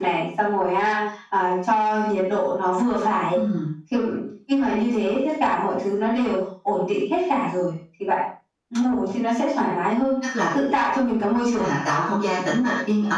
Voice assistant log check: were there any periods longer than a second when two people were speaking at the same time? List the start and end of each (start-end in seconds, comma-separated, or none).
none